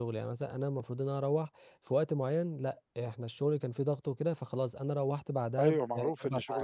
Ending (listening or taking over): taking over